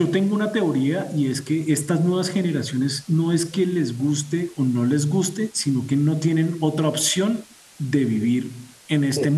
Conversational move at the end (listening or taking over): listening